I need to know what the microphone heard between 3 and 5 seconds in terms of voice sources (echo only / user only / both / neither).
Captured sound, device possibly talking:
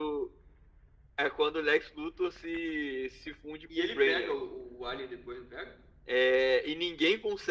both